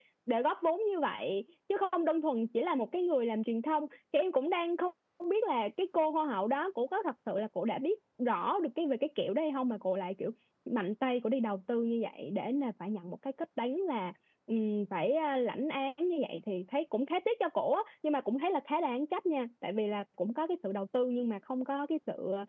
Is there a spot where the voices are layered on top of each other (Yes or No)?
No